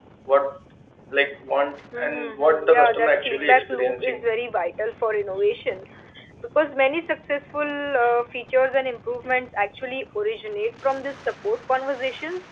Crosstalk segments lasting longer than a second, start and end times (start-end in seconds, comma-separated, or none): 2.0-4.3